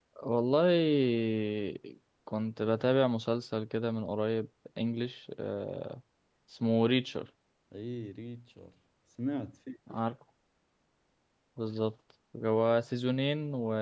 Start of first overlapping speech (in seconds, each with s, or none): none